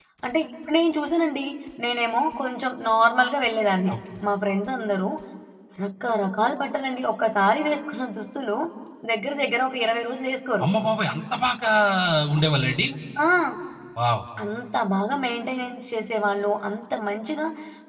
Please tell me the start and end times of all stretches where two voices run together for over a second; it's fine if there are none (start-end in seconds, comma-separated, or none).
none